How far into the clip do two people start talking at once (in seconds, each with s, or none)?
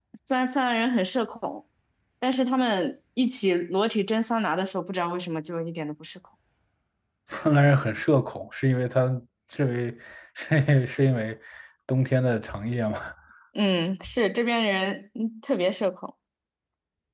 none